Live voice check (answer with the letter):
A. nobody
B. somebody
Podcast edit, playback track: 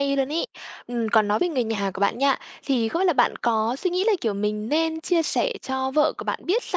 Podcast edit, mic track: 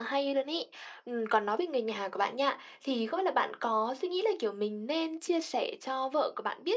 A